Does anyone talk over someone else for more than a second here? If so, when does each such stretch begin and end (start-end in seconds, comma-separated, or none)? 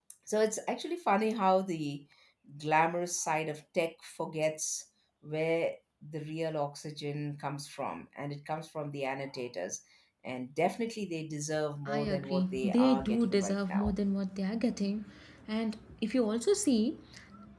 11.9-13.9